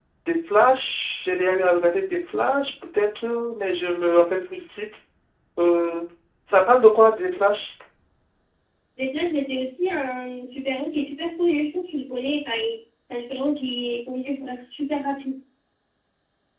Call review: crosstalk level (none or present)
none